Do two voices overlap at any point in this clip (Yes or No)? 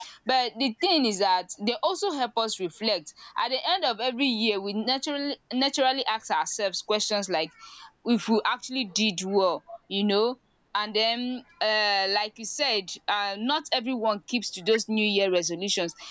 No